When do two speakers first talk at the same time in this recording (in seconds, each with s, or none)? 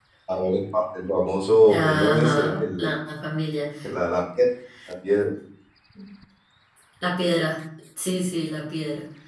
1.7 s